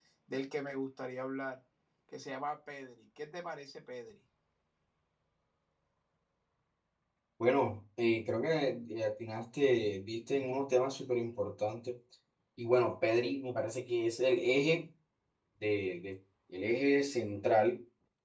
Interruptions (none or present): none